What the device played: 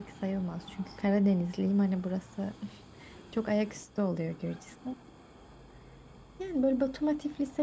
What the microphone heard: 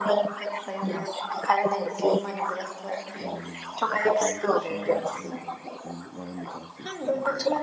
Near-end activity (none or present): present